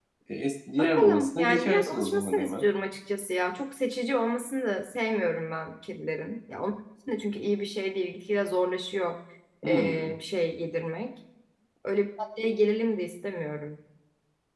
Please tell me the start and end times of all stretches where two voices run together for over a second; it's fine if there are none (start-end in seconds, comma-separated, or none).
0.8-2.6